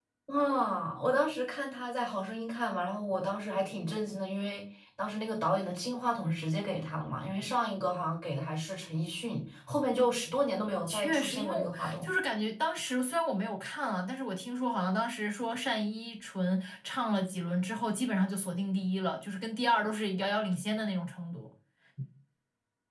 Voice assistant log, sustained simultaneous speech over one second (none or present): present